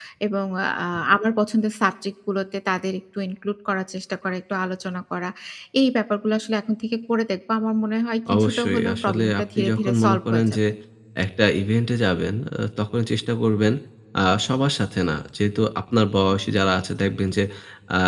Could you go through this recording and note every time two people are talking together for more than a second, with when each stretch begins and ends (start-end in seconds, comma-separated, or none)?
8.3-10.4